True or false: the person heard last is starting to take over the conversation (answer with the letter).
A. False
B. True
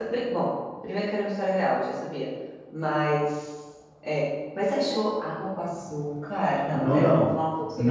B